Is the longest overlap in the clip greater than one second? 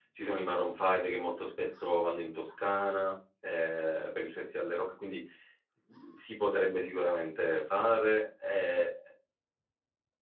No

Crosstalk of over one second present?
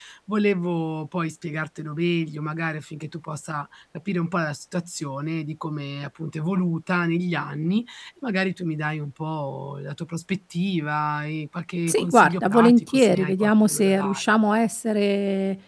Yes, from 11.9 s

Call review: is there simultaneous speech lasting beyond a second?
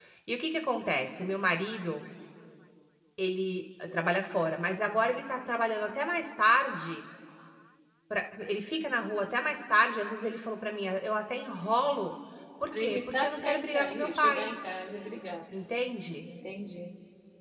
Yes, from 12.7 s

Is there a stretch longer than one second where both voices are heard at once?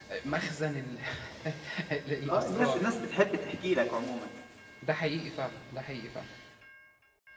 No

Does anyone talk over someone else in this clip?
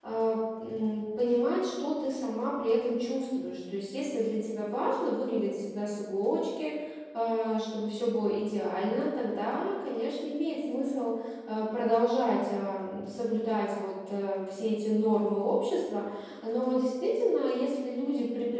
No

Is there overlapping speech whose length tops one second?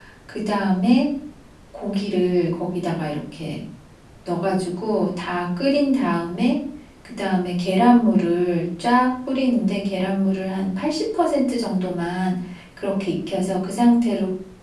No

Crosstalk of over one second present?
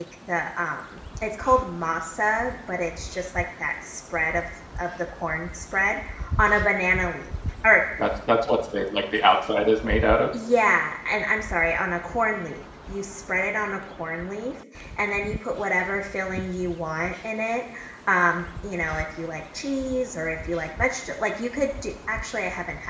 No

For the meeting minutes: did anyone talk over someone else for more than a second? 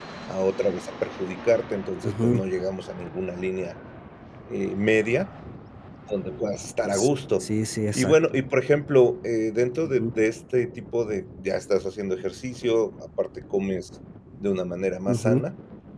No

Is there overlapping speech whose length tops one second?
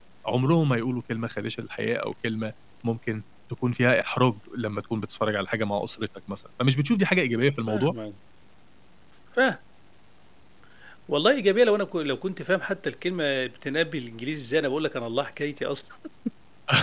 No

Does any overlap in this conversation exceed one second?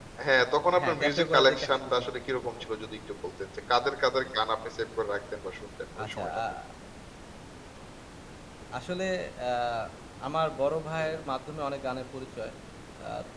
Yes, from 0.8 s

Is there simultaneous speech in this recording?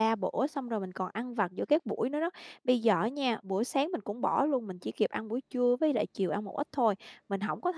No

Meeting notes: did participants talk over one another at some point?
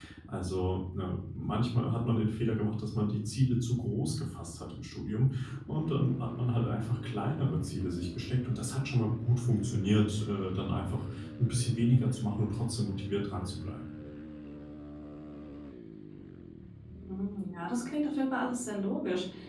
No

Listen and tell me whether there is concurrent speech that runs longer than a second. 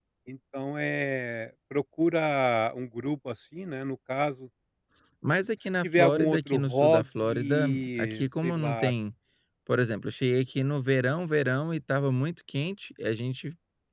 Yes, from 5.8 s

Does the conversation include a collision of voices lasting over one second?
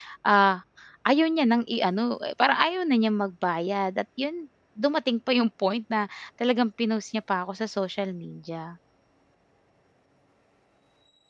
No

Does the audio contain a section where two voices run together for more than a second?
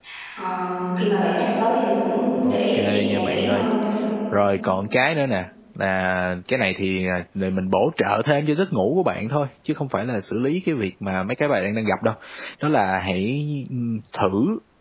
Yes, from 2.4 s

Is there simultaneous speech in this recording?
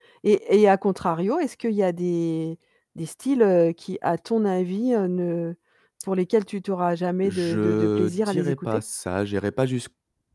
Yes, from 7.2 s

